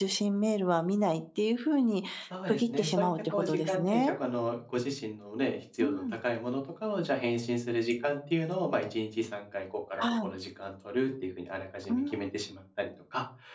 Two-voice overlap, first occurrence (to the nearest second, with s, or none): 2 s